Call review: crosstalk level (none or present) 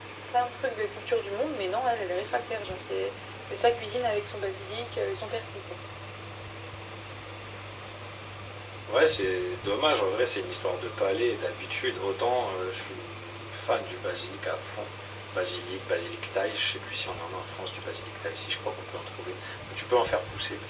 none